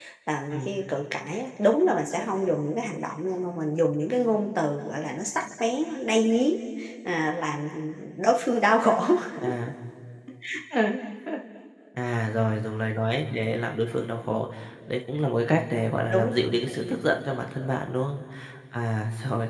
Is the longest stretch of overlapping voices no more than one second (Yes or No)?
Yes